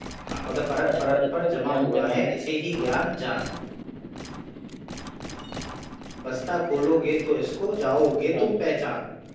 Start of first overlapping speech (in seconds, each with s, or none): 0.8 s